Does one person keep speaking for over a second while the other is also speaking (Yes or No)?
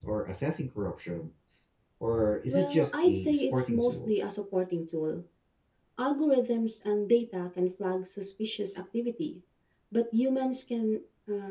Yes